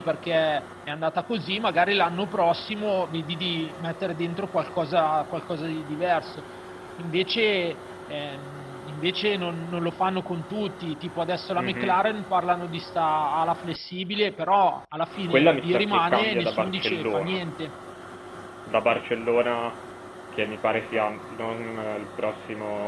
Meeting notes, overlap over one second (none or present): present